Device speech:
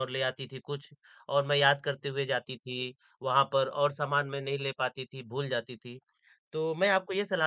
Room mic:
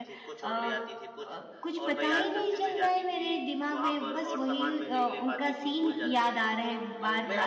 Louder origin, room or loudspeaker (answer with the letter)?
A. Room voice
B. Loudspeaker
A